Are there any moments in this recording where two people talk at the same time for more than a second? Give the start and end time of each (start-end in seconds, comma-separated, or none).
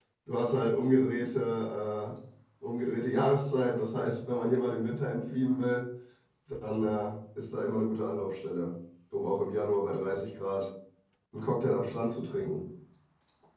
none